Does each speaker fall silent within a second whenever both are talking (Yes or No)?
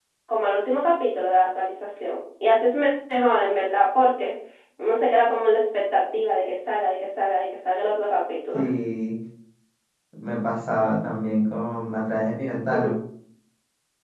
Yes